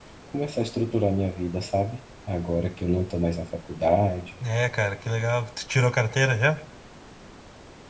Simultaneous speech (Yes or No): No